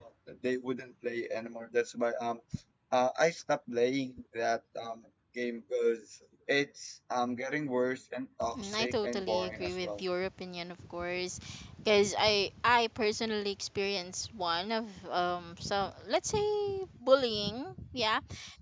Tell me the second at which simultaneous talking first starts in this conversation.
8.4 s

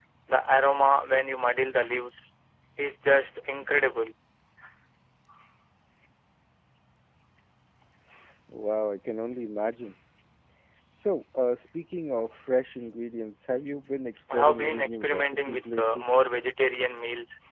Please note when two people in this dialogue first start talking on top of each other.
14.3 s

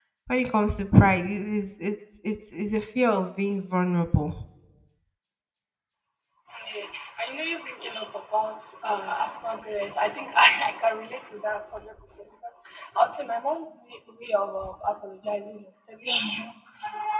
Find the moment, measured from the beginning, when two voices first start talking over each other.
none

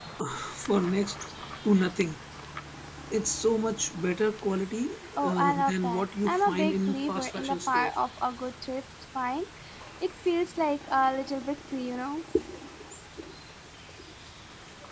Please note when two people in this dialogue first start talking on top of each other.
5.2 s

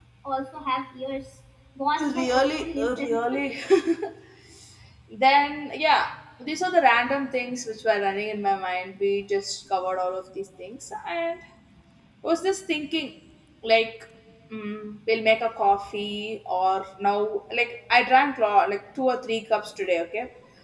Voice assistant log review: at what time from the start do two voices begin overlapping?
2.0 s

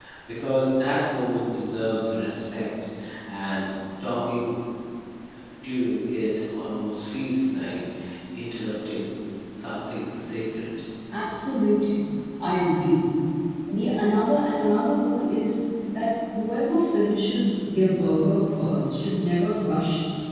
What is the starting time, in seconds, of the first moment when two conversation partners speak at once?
none

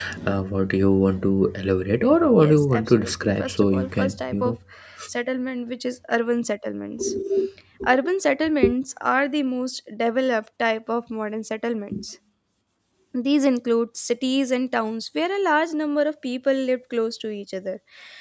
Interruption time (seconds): 2.4 s

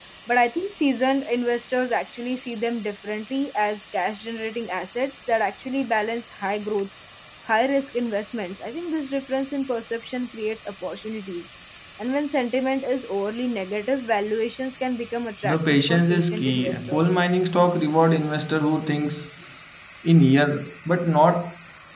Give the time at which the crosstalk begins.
15.4 s

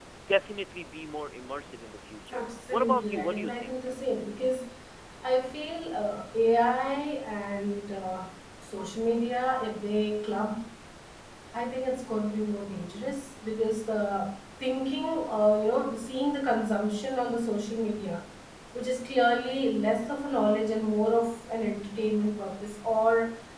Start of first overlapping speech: 2.3 s

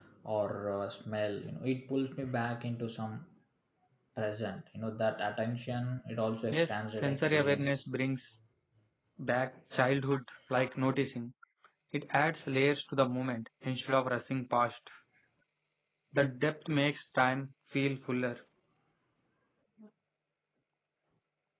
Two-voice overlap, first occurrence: 6.5 s

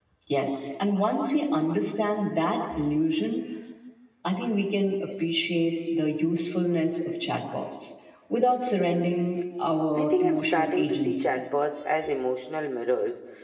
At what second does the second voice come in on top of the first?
9.9 s

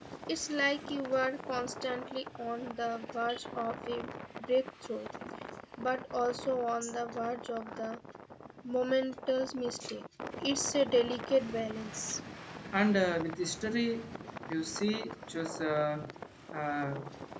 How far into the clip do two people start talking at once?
none

